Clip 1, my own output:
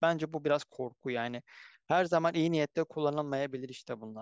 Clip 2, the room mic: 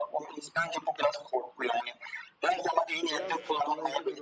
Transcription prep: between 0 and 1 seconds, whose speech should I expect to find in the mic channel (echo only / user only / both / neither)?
echo only